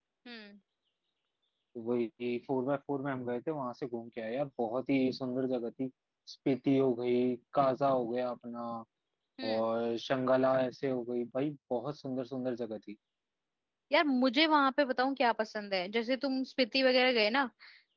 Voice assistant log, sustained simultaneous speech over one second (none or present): none